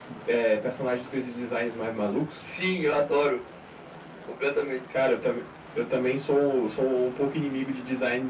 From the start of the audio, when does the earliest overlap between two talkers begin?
none

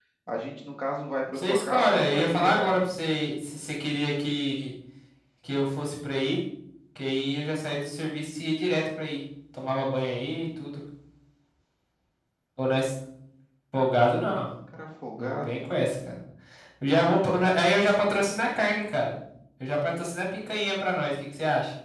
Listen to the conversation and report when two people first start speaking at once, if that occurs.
1 s

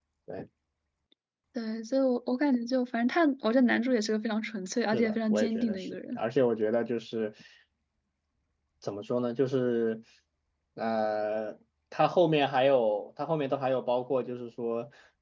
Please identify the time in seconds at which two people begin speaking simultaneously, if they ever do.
5 s

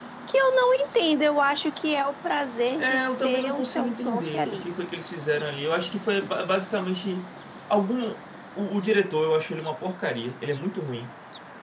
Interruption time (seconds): 3 s

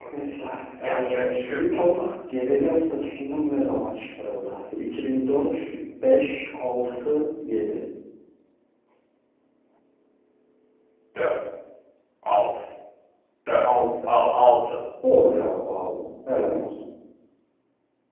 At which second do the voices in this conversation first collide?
1 s

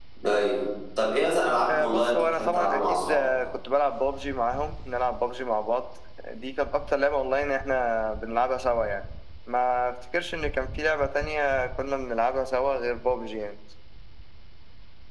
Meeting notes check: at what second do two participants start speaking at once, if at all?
2 s

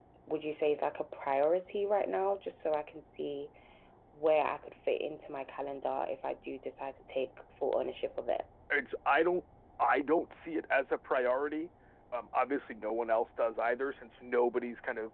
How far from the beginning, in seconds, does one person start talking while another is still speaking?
none

